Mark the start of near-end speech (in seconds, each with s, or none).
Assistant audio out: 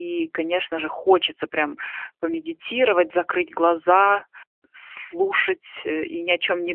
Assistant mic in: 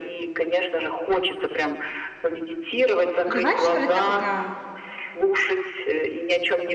3.2 s